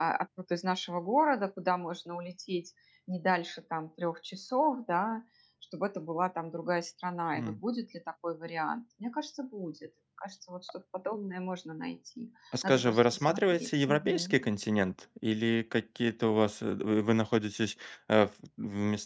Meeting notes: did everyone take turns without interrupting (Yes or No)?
No